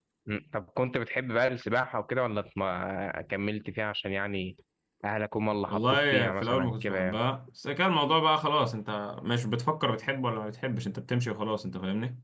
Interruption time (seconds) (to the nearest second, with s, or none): 6 s